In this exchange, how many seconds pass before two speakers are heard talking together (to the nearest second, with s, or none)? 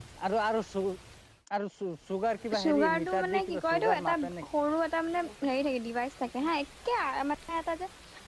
3 s